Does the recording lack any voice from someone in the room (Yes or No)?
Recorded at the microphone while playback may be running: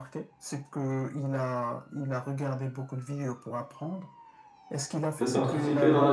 No